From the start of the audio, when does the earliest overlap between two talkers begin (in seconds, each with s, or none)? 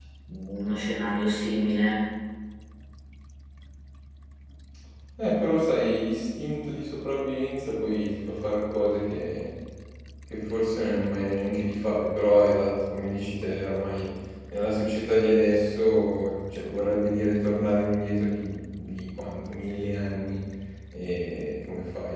none